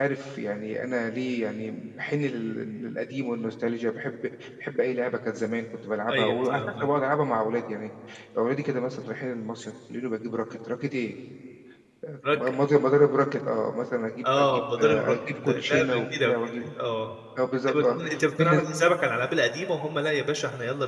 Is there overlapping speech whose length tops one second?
Yes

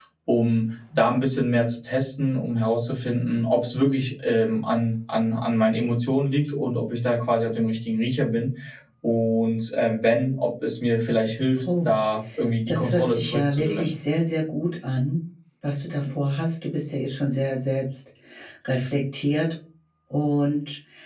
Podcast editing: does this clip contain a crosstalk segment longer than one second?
Yes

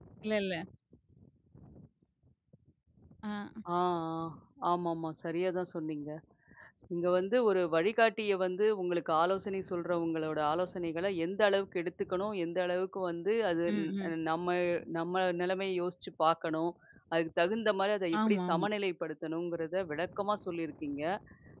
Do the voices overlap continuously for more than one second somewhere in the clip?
No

